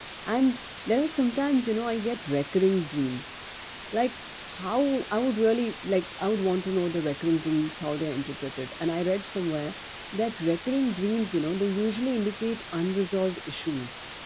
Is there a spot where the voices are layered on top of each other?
No

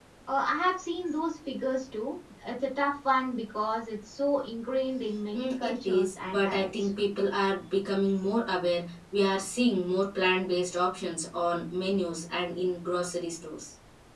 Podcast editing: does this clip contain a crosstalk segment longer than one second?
Yes, from 5.3 s

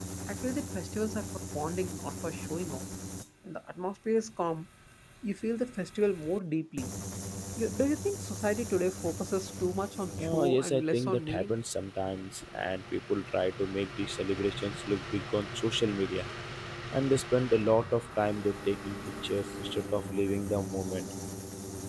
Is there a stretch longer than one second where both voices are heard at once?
Yes, from 10.2 s

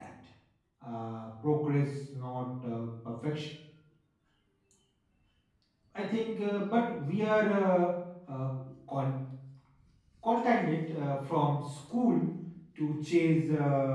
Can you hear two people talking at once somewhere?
No

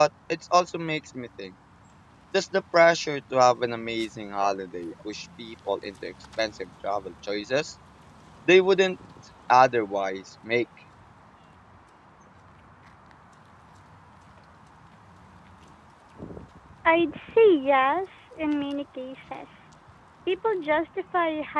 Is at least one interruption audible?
No

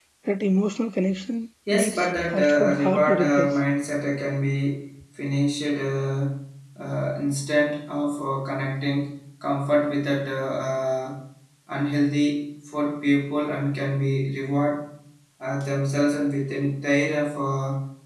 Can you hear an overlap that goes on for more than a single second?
Yes, from 1.7 s

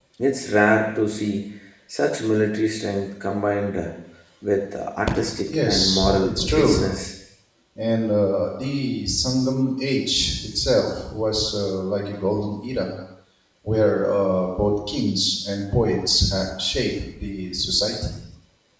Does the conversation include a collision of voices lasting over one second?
Yes, from 5.5 s

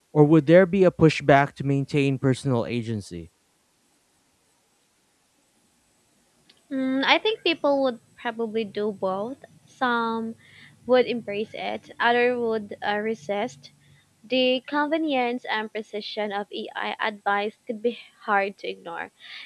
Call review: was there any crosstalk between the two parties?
No

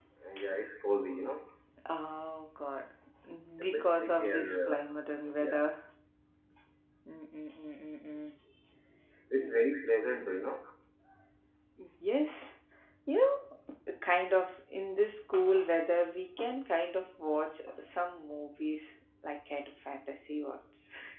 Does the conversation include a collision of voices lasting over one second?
Yes, from 3.6 s

